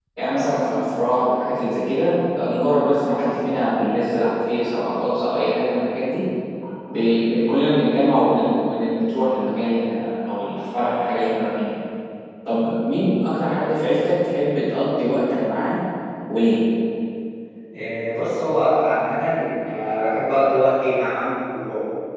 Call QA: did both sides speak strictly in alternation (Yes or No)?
Yes